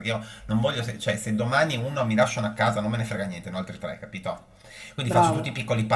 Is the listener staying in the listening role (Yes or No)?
Yes